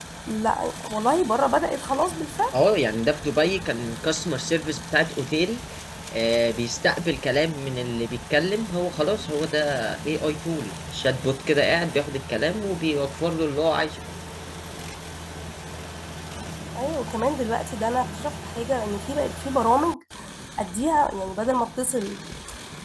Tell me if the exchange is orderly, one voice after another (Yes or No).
Yes